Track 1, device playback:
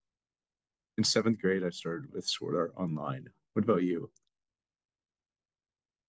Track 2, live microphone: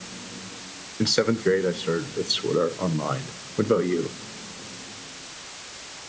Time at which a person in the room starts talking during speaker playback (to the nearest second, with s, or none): none